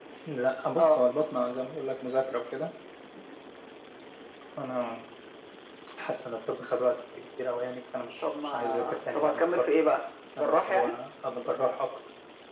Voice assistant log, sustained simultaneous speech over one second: present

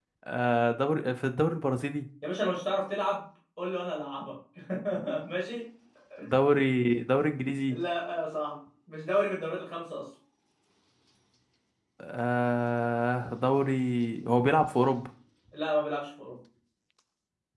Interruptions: none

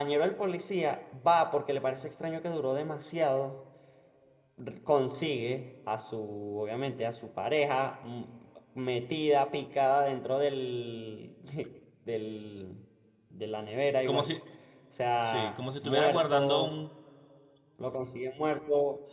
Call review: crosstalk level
present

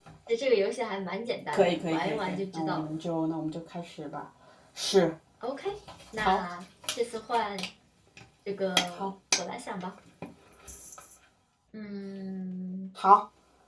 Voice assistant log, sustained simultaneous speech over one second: present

